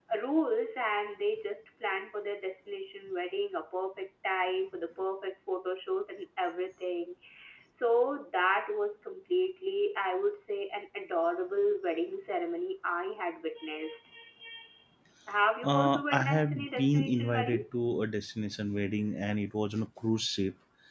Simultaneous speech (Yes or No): Yes